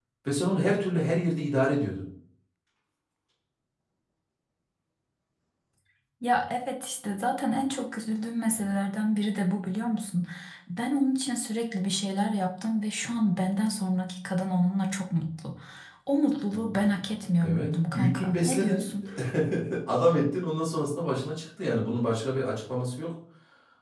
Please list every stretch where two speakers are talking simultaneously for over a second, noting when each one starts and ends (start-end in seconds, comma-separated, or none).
17.4-18.8